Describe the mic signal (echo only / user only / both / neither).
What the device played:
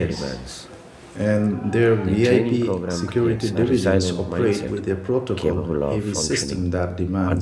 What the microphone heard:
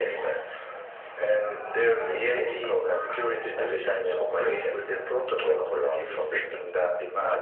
echo only